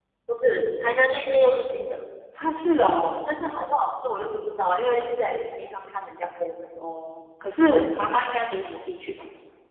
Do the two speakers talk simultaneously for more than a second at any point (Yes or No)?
No